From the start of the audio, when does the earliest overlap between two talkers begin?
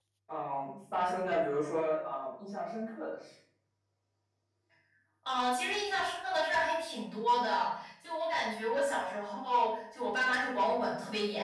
none

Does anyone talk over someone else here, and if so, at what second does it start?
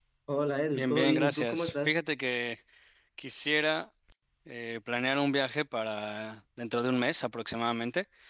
0.7 s

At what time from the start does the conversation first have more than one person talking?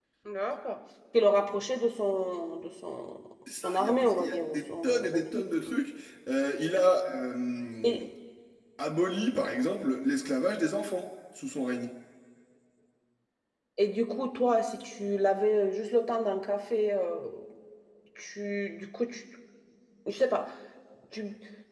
3.5 s

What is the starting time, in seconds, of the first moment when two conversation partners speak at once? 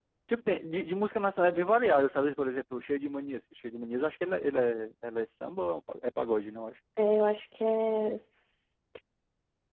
none

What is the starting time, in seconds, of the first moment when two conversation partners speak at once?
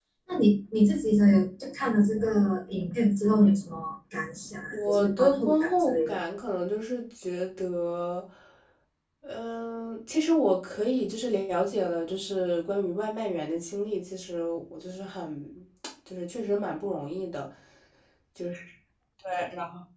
4.7 s

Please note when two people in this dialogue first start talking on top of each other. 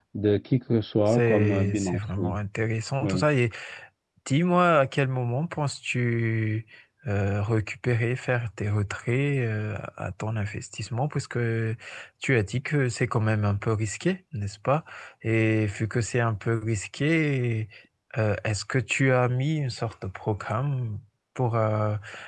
1.1 s

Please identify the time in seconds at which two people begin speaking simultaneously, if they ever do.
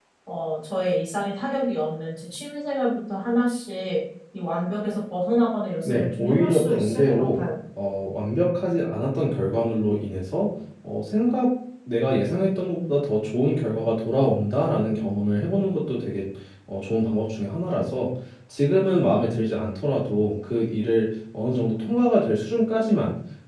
5.8 s

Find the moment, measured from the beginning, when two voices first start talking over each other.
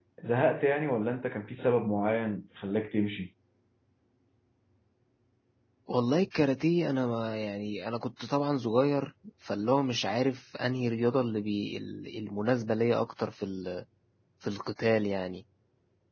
none

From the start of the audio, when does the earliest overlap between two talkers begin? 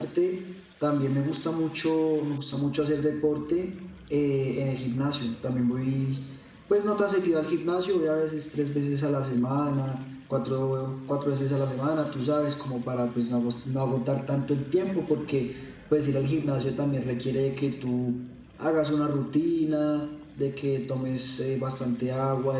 none

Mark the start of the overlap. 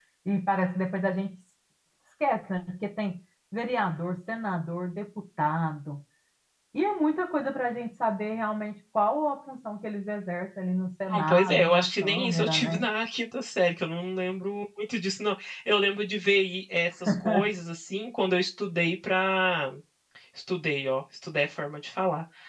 11.1 s

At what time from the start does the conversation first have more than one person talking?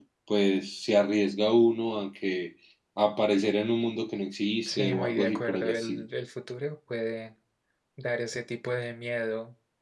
4.6 s

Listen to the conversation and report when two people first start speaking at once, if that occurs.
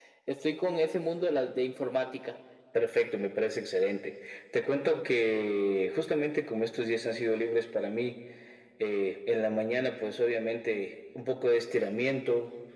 none

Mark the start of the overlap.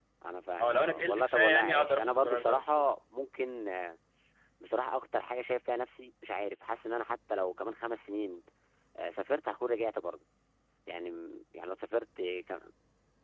0.6 s

